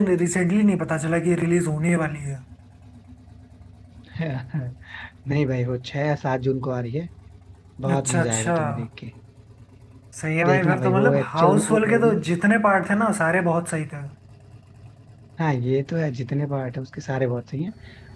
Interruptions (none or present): present